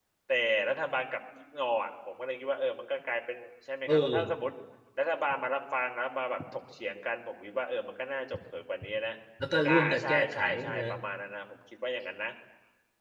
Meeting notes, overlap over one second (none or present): present